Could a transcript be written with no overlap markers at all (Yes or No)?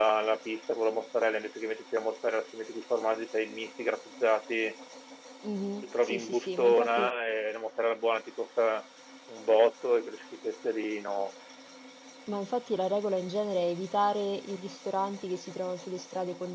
No